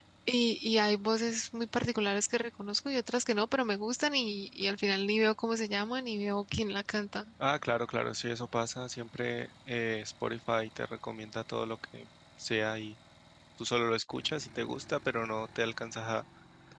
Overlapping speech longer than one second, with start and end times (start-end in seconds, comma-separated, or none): none